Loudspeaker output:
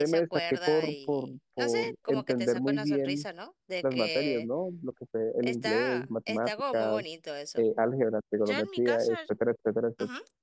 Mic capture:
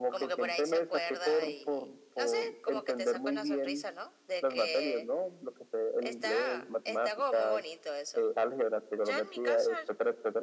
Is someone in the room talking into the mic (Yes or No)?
No